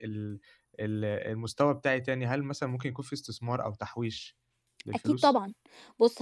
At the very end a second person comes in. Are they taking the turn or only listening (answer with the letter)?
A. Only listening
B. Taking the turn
B